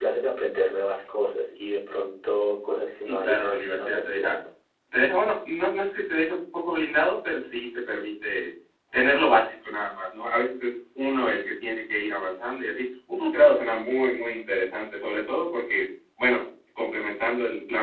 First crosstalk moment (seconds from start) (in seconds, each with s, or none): 2.9 s